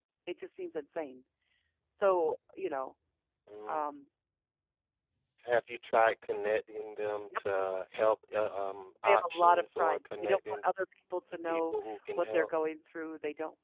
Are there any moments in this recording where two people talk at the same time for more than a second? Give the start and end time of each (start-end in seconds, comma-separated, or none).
9.0-10.6